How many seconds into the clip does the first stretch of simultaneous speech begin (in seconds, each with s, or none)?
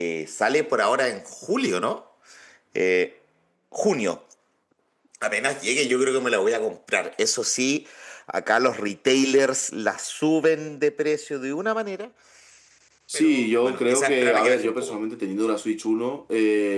13.1 s